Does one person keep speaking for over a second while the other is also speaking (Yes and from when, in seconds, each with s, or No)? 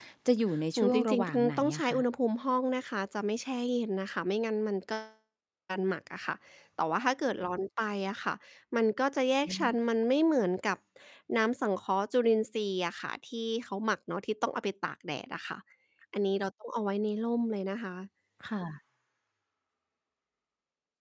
Yes, from 0.8 s